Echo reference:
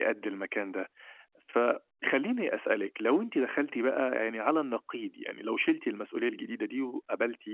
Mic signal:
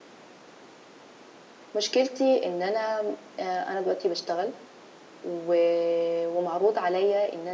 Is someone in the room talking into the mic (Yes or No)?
Yes